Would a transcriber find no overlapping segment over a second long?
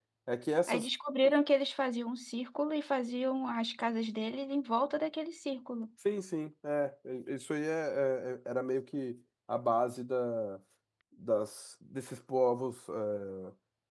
Yes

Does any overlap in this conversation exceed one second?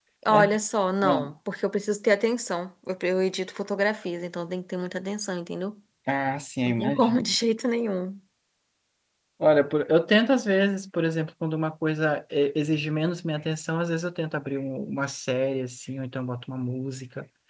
No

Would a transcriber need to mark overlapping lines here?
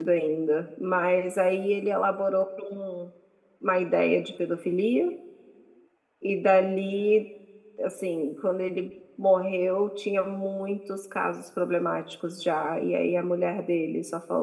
No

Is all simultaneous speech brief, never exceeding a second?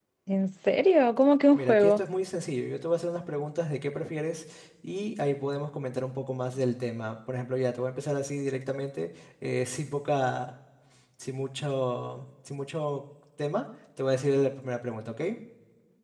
Yes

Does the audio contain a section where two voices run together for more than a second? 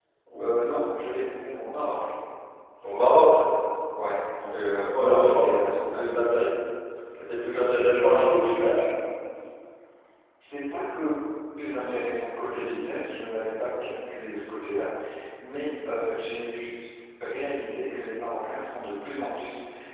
Yes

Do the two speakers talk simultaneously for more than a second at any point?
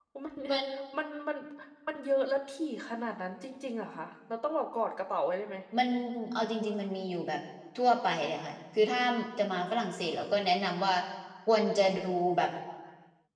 No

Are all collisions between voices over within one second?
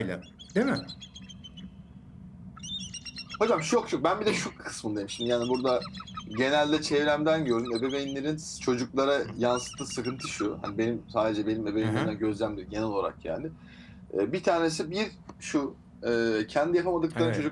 Yes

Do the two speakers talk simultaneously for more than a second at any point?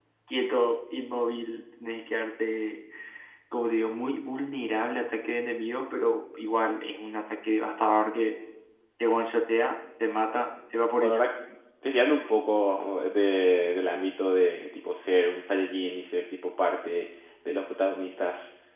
No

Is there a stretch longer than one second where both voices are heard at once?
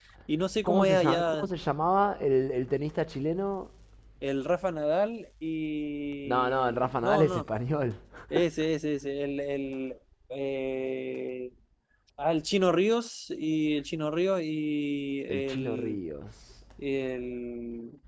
Yes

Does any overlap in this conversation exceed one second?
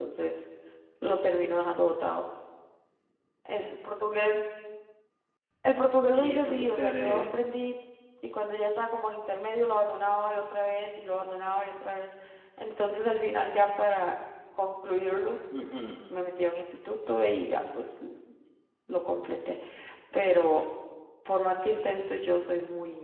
Yes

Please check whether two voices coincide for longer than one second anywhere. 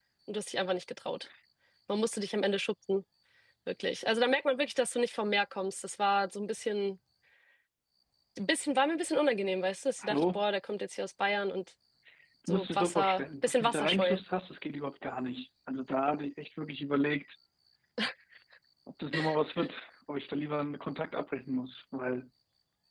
Yes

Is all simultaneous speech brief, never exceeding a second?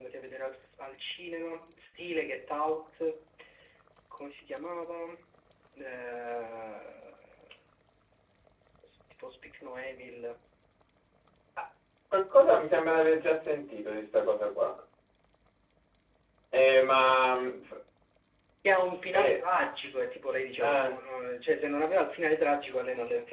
Yes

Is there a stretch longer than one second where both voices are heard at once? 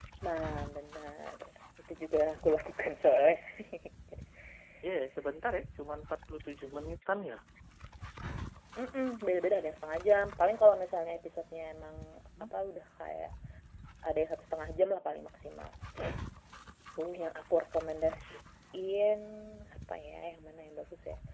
No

